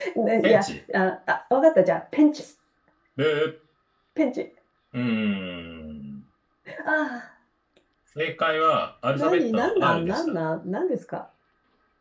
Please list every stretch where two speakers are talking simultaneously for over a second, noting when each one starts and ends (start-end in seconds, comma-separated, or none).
9.2-10.4